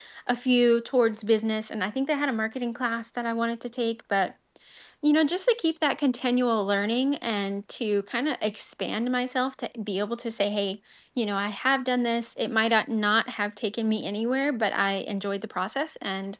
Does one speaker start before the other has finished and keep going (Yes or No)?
No